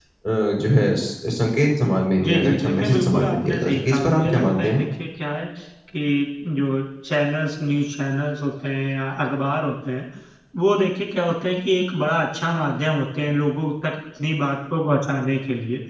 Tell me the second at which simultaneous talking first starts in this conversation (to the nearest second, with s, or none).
2 s